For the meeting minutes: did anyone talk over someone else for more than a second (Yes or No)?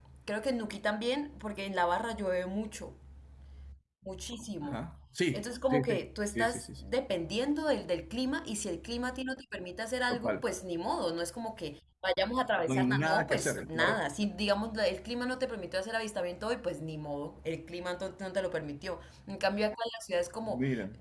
Yes